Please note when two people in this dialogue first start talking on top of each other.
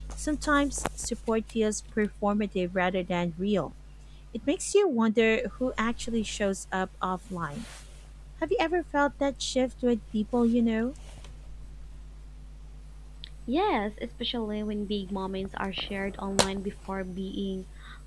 none

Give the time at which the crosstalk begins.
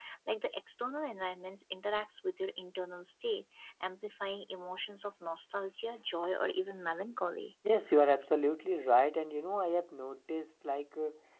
none

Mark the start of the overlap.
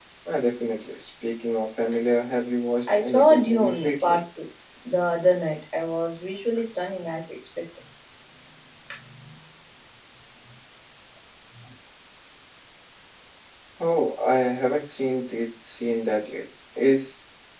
2.9 s

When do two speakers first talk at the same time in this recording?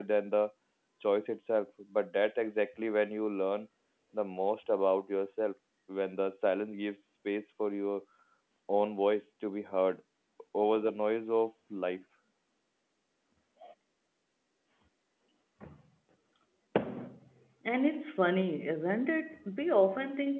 none

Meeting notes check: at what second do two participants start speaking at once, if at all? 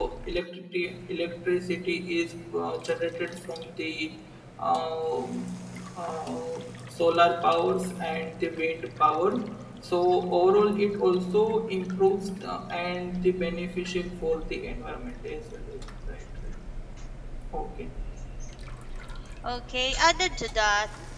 none

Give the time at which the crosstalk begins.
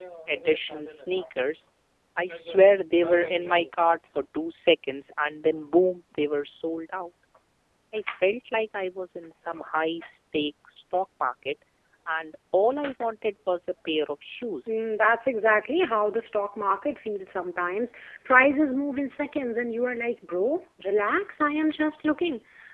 none

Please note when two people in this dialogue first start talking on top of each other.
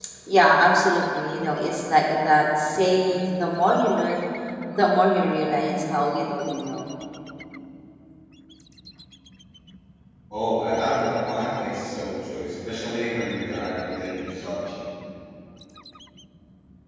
none

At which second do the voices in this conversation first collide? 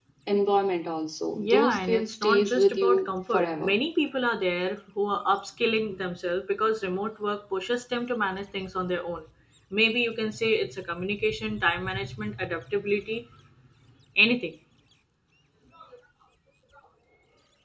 1.4 s

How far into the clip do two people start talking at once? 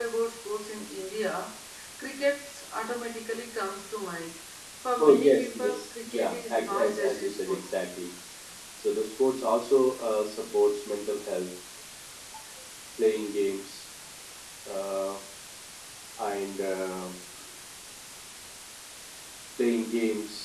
5.0 s

